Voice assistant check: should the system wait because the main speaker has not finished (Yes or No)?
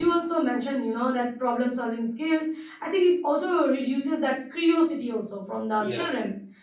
Yes